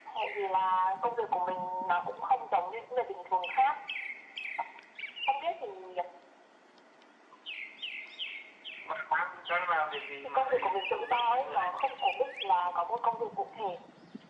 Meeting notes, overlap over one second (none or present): present